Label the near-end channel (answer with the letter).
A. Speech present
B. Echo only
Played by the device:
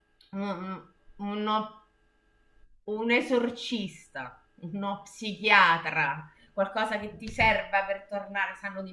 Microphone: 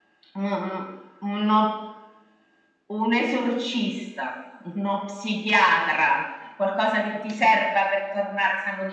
B